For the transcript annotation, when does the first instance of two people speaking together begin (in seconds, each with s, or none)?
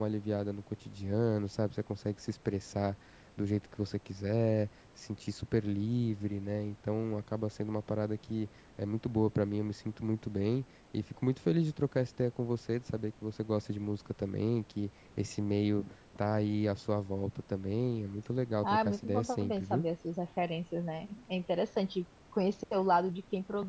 18.6 s